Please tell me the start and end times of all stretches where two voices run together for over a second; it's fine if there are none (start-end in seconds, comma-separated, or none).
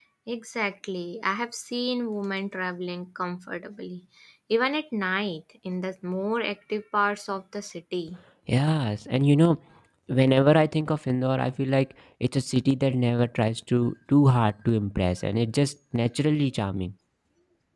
none